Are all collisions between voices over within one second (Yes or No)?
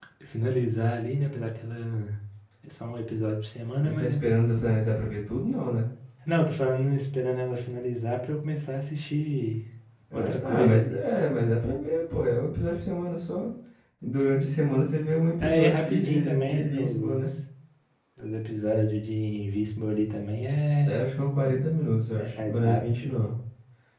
No